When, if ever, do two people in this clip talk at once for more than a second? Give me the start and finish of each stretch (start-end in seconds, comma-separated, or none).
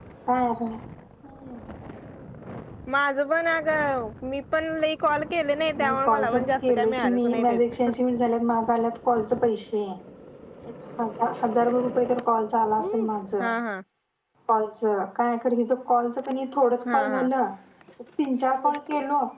5.8-7.6